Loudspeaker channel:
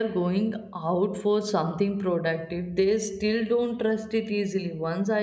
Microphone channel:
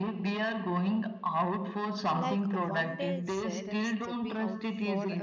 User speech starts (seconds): 2 s

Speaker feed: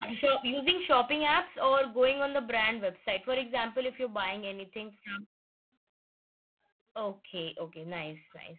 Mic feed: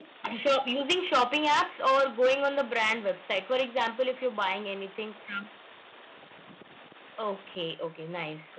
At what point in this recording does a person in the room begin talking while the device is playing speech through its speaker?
none

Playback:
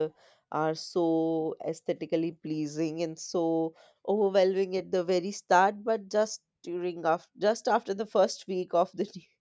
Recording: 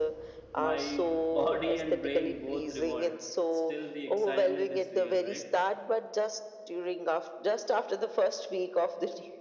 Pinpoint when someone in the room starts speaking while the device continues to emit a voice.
1 s

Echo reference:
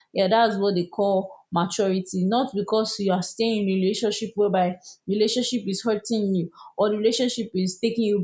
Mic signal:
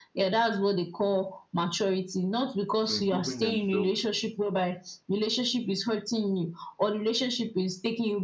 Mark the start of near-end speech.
3 s

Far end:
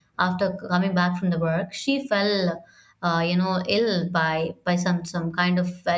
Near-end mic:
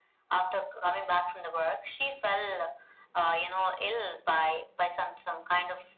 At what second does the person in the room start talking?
none

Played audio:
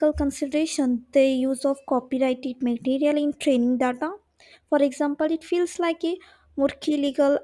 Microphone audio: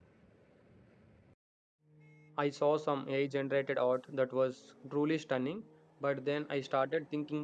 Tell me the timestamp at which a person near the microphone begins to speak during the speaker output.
2 s

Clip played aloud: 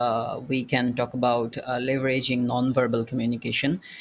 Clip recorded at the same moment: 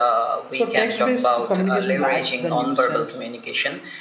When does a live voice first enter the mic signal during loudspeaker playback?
0 s

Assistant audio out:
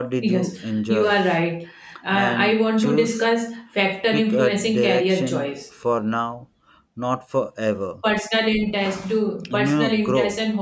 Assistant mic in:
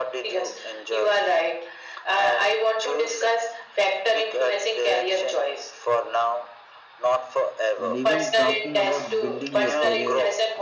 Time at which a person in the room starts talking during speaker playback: 8 s

